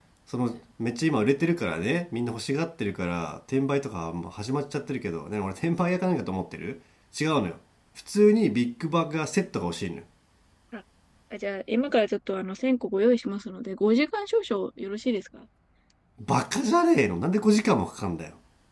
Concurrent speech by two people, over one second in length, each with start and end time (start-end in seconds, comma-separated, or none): none